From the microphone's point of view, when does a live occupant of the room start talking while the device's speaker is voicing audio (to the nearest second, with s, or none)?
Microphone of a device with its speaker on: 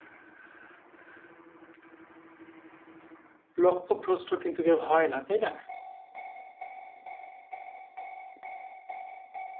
4 s